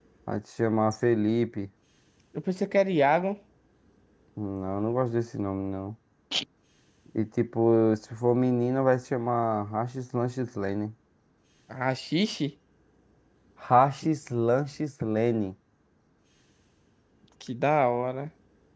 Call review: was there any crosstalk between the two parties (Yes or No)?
No